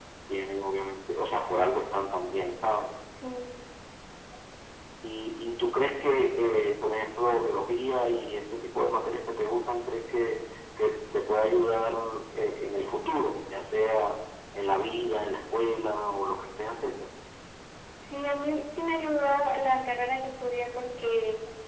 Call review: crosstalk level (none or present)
none